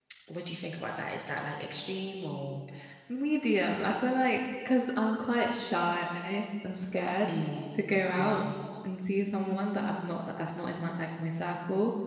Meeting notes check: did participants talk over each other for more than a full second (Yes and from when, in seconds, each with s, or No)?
No